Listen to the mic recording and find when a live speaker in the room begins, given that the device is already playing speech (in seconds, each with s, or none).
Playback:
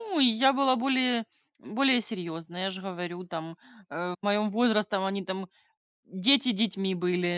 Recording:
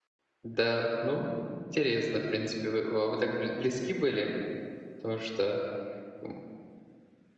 0.4 s